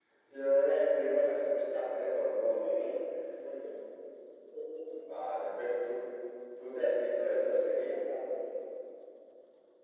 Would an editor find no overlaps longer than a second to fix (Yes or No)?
Yes